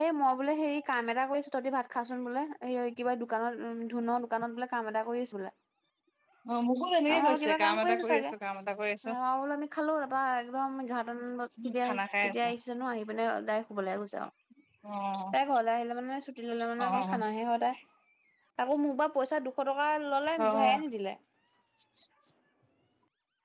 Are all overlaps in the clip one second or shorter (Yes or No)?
No